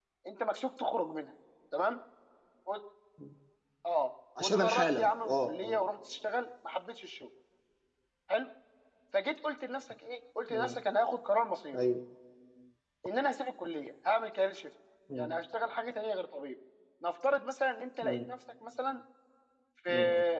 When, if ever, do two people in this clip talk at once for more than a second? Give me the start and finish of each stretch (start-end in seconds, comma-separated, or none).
4.4-5.8